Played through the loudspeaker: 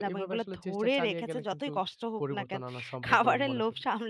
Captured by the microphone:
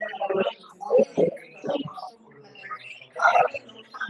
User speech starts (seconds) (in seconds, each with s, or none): none